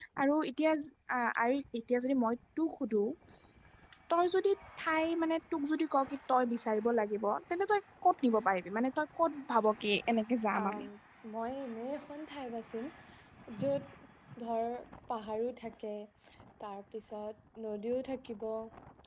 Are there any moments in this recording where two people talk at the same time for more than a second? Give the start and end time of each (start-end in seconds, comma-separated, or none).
none